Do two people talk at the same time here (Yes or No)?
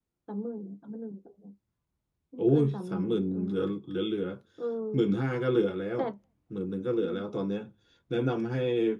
Yes